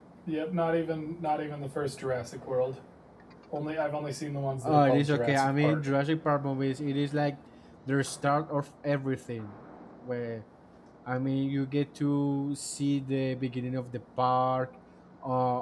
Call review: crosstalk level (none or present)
present